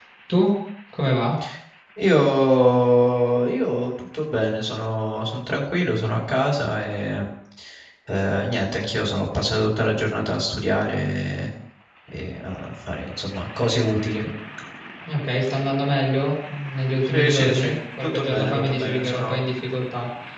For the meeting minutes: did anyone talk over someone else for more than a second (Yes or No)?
Yes